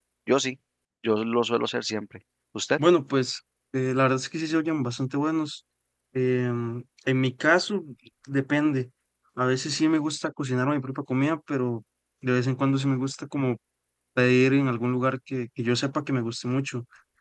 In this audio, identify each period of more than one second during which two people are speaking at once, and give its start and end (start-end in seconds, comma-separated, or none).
none